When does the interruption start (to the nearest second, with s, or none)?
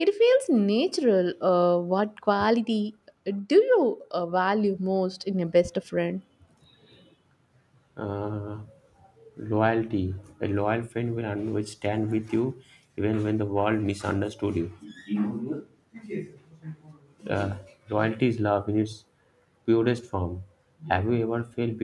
none